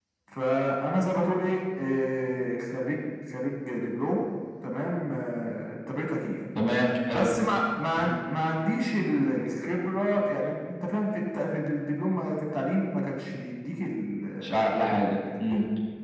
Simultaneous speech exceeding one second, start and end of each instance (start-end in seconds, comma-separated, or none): none